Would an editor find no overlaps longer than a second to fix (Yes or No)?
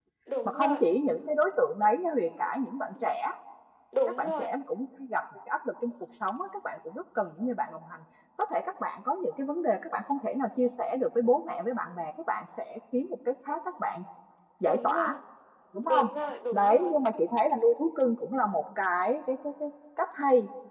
Yes